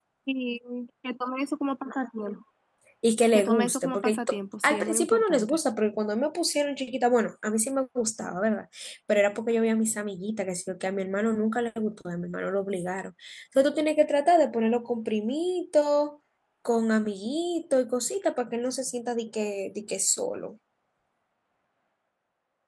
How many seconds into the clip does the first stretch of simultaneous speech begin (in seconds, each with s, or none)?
3.3 s